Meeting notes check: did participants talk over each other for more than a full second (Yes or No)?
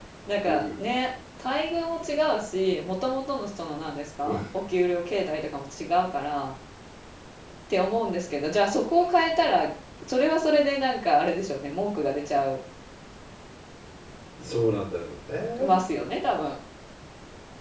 No